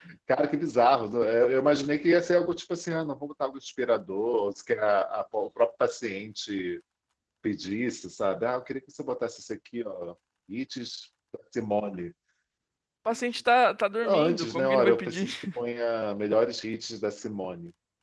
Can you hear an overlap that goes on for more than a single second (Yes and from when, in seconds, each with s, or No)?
Yes, from 14.0 s